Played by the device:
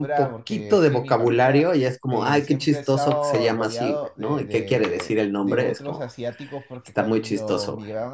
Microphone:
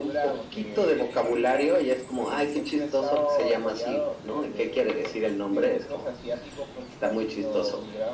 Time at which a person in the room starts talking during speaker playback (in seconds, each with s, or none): none